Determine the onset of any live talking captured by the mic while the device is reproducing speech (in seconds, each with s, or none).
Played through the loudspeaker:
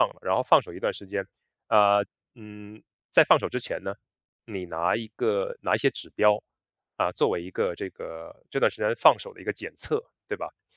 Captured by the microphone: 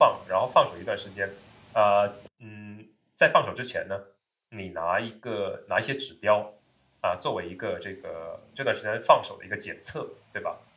none